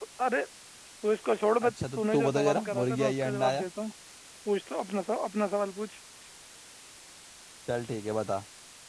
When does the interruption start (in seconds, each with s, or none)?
1.6 s